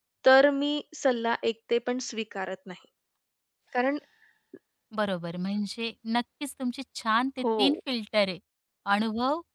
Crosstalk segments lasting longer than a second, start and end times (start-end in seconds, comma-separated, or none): none